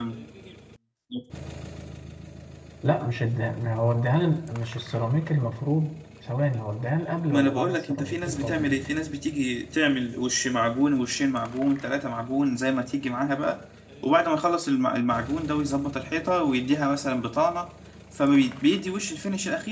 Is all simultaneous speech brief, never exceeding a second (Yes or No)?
No